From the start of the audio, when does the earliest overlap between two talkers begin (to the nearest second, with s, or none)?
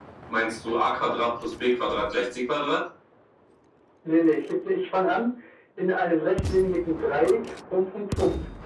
none